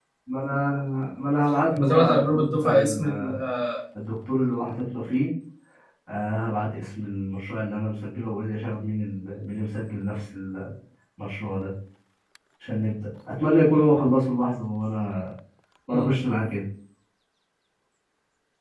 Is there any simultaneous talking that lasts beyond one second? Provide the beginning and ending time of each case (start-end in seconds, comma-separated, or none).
1.7-3.3